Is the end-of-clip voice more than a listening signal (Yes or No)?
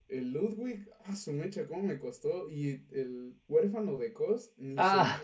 Yes